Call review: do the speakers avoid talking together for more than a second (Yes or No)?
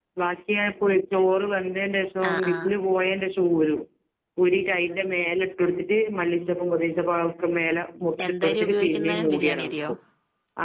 No